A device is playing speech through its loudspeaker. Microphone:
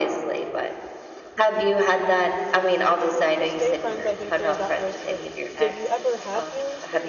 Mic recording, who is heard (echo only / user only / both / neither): both